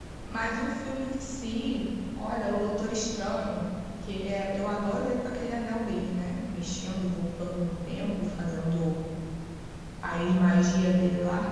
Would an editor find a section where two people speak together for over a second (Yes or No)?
No